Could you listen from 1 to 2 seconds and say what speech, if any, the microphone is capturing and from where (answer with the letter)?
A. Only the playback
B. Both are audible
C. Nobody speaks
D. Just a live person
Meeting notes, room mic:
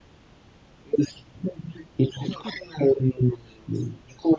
A